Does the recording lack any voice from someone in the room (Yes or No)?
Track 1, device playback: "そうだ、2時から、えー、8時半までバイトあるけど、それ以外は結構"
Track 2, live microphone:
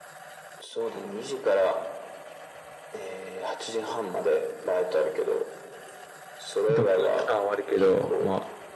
No